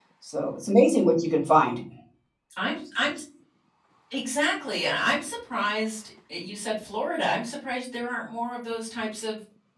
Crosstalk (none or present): none